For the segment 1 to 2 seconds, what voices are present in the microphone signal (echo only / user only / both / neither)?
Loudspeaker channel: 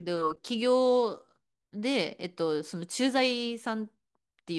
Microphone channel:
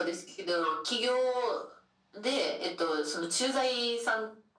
echo only